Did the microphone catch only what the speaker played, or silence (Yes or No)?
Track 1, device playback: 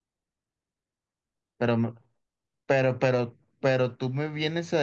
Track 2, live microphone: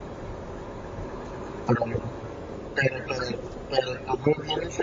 Yes